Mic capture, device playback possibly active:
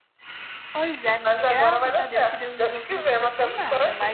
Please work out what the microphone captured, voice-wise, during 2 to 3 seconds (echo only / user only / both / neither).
both